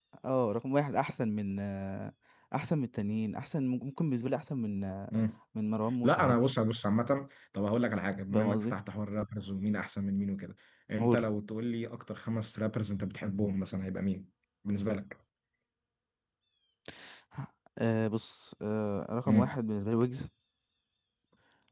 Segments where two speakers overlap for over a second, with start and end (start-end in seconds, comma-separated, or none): none